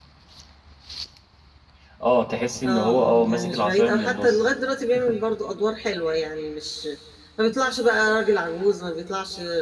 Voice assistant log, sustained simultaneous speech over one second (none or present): present